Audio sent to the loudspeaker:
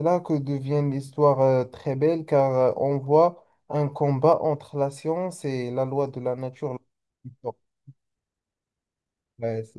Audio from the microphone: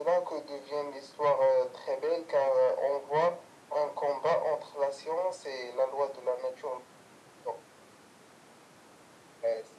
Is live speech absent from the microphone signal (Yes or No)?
Yes